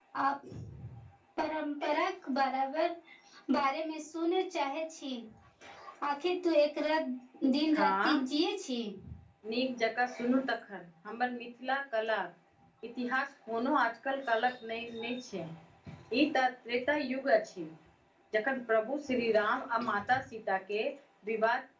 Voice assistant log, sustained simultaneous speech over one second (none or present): none